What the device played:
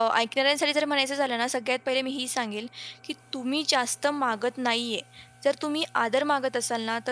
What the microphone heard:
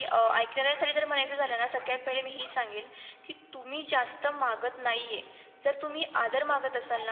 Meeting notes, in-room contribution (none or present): none